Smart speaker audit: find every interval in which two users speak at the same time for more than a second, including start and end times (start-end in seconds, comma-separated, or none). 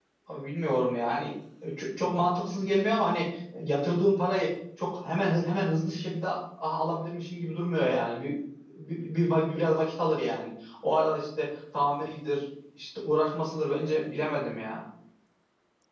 none